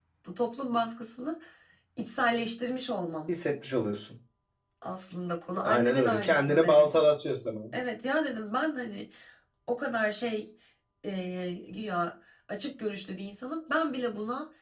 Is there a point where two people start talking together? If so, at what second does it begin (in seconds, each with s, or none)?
5.6 s